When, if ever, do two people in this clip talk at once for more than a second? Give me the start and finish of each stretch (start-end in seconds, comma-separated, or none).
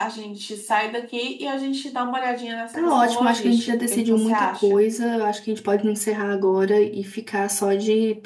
2.7-4.8